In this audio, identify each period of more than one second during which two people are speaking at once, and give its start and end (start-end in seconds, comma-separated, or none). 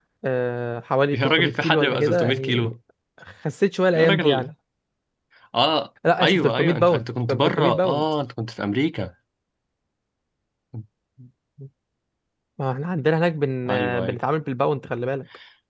1.1-2.7, 6.2-8.0